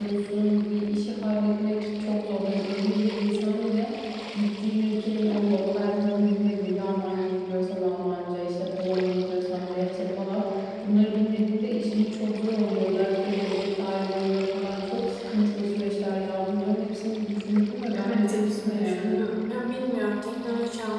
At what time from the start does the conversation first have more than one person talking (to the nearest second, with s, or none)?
18 s